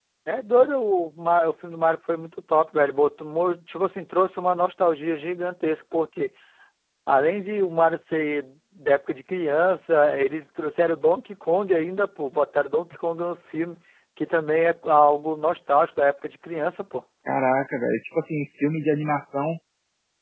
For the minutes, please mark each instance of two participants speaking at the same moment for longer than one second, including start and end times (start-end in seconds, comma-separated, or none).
none